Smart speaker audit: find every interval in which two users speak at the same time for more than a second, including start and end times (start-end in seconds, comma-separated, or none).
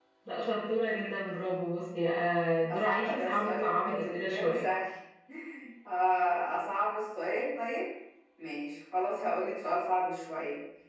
2.7-4.6